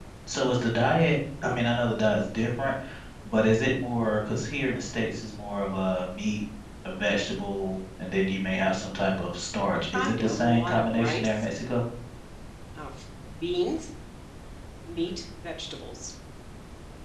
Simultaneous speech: Yes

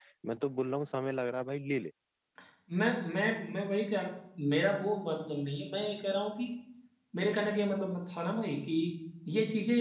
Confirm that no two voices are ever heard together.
Yes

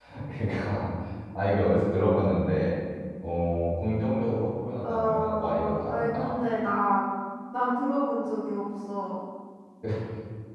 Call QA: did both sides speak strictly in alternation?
No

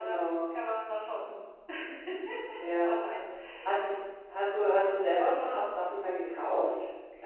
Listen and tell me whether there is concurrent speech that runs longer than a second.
No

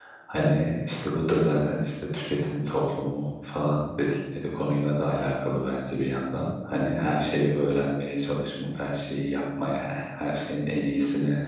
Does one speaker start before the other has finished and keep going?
No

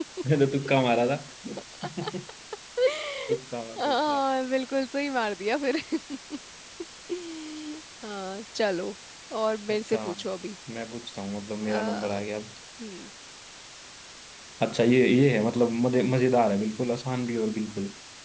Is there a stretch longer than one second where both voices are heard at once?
No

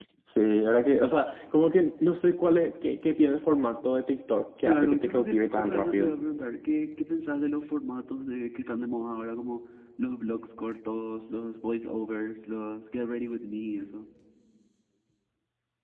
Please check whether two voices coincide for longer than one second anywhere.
Yes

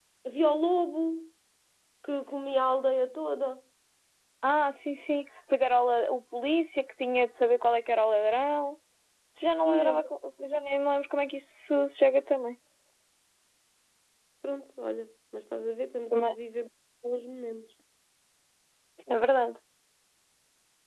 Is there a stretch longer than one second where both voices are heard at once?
No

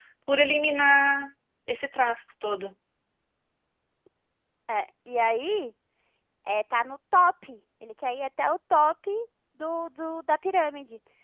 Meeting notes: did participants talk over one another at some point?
No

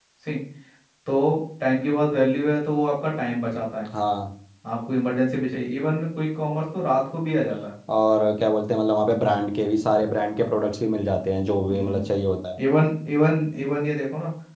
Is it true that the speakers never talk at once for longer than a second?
Yes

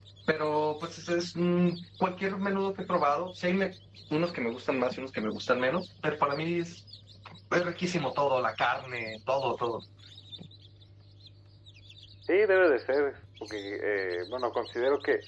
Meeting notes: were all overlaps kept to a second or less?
Yes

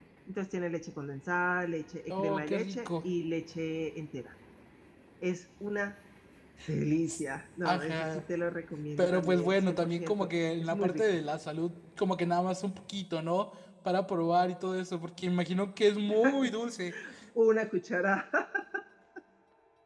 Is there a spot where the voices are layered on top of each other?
Yes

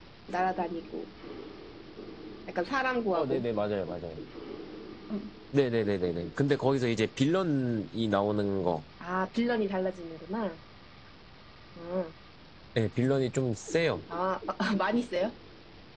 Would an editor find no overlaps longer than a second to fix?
Yes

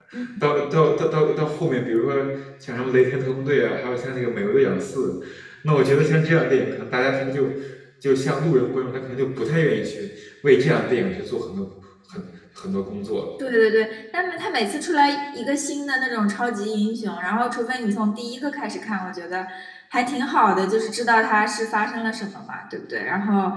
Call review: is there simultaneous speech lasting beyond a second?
No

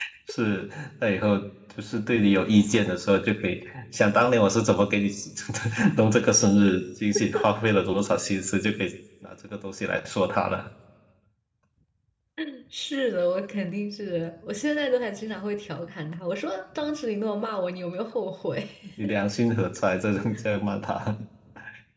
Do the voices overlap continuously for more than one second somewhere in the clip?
No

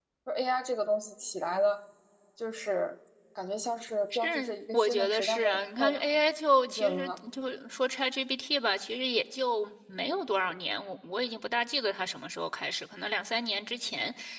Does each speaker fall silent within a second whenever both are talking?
No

